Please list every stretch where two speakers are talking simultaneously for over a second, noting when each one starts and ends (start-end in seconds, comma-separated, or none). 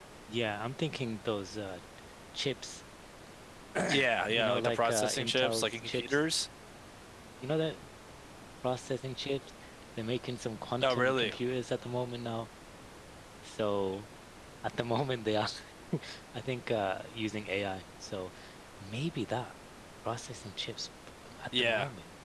4.3-6.2